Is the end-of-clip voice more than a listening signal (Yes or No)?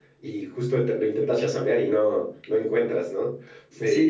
Yes